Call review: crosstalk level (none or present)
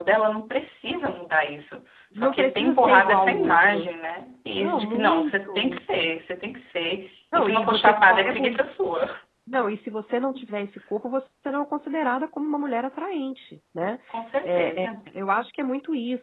present